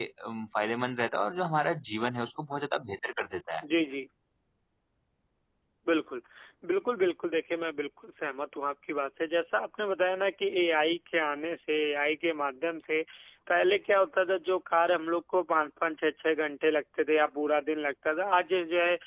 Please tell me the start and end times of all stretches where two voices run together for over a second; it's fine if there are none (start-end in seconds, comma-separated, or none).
none